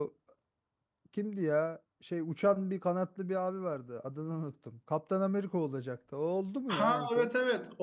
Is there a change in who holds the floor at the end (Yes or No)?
Yes